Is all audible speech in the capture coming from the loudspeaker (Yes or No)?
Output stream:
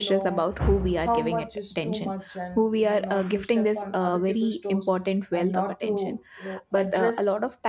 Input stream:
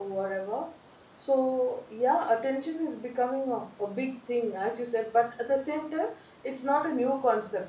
No